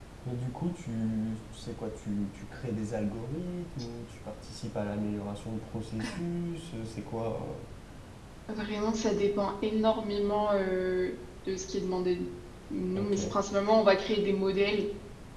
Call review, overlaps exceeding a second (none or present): none